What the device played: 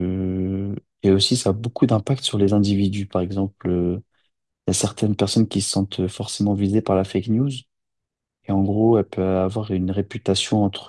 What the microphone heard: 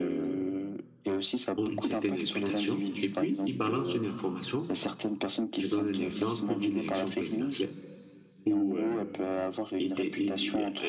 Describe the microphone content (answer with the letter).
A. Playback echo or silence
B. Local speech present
B